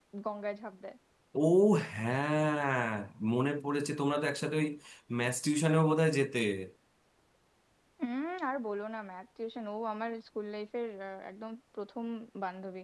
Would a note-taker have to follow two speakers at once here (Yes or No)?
No